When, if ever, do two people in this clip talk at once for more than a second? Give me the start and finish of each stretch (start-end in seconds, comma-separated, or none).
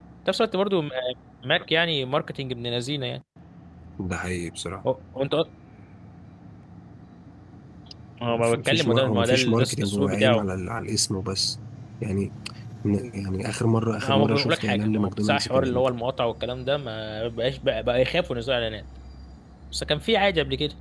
8.3-10.4, 14.0-15.9